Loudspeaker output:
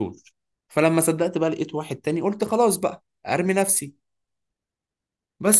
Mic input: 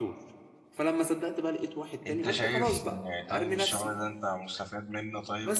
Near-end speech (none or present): present